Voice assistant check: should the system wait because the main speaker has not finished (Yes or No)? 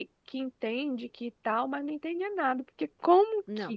Yes